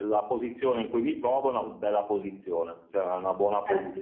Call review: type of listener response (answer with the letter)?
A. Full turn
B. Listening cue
A